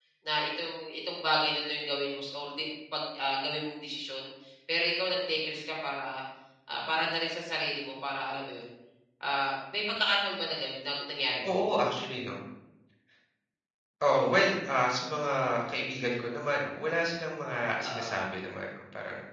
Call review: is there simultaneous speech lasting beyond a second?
No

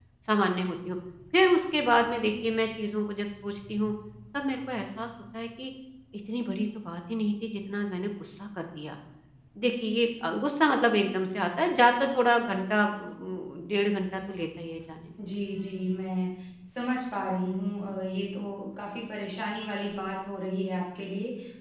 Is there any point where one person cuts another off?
No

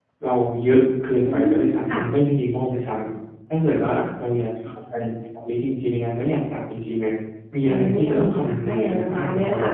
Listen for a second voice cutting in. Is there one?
Yes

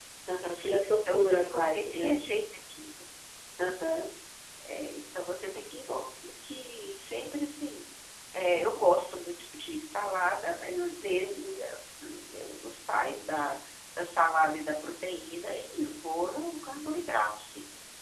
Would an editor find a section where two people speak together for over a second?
Yes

